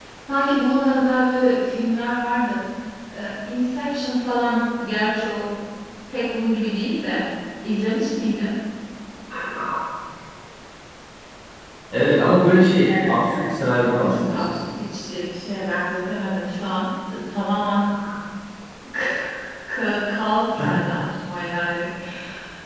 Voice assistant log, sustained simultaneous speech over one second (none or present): present